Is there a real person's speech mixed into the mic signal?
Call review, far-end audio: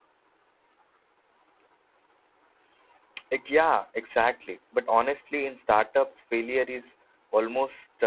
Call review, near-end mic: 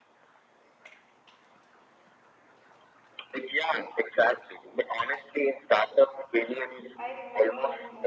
Yes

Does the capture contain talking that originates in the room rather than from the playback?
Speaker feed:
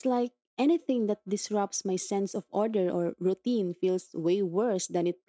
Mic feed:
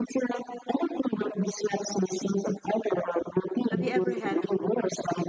Yes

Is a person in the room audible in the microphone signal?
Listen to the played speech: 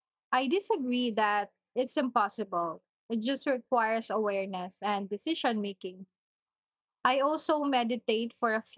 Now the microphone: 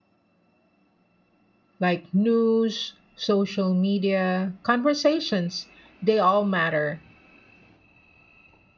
Yes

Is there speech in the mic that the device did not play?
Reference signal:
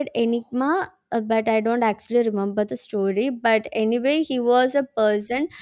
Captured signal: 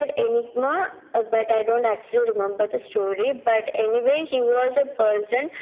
No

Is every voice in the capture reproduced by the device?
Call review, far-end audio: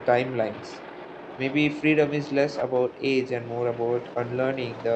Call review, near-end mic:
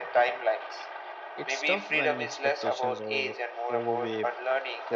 No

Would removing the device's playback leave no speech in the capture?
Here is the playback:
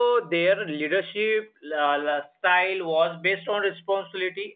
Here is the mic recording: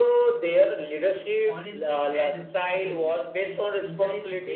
No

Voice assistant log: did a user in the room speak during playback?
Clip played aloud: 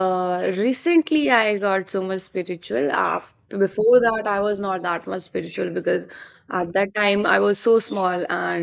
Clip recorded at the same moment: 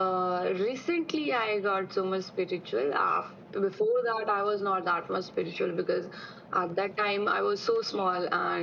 No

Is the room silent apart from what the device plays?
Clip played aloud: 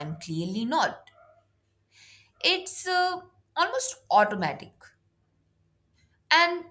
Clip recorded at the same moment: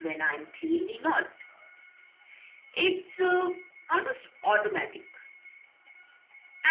Yes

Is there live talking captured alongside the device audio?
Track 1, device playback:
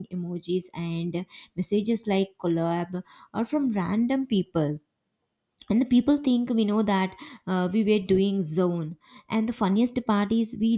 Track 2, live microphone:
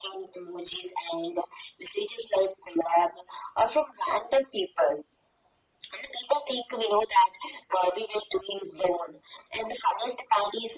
No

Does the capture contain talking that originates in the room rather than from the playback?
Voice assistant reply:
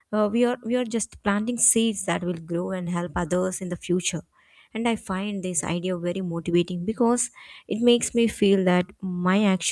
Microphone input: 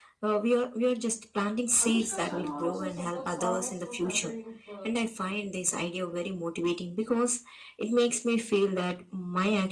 Yes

